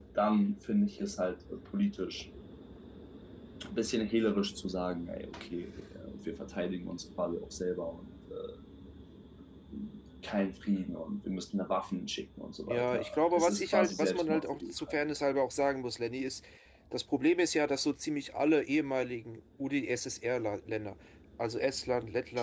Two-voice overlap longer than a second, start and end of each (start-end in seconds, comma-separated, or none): 12.7-15.0